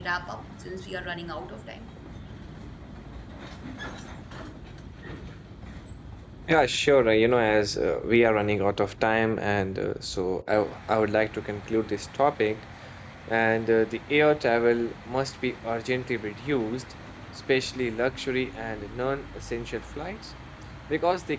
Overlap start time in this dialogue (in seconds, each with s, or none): none